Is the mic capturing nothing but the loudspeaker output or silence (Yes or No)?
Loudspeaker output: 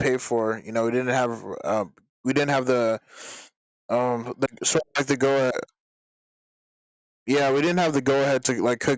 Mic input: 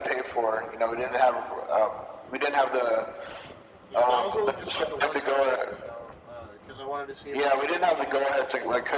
No